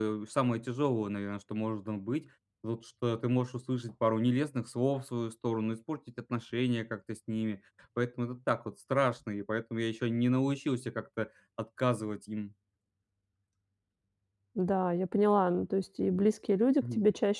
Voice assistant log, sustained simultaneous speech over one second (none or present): none